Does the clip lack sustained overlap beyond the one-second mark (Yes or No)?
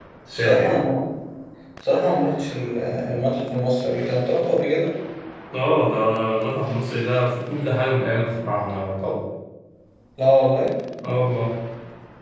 Yes